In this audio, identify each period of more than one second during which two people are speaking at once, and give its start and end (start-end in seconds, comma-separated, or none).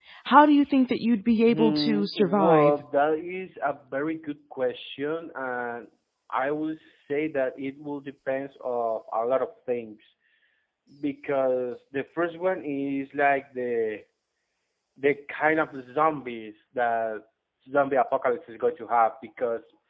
1.5-2.7